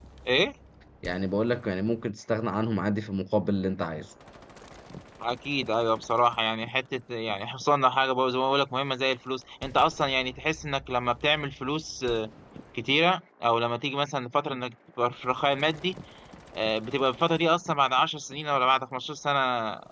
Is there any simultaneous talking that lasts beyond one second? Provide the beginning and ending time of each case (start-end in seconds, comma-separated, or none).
none